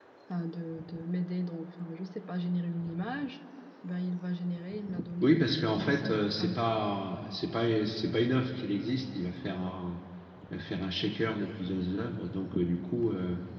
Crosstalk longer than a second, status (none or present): present